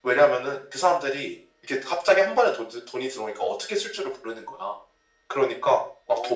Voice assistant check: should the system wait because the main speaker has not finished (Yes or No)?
Yes